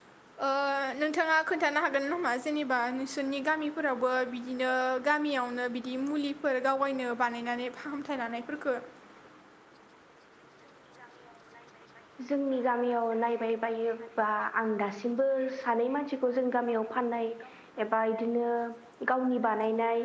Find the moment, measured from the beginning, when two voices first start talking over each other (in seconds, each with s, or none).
none